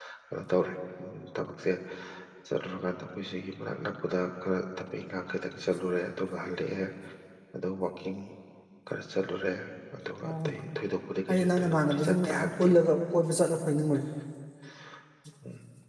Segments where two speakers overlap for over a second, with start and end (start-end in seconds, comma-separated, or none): 11.3-12.7